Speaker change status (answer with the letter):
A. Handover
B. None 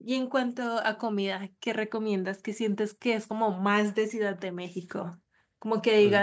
B